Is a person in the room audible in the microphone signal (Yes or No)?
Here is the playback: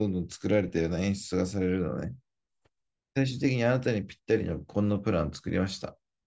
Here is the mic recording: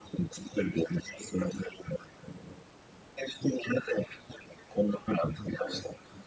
No